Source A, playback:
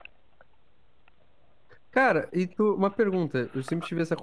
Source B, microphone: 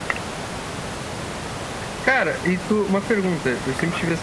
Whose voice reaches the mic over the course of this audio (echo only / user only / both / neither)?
echo only